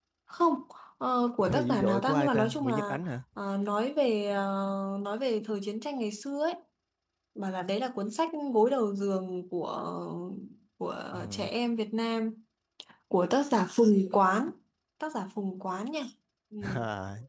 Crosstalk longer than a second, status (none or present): present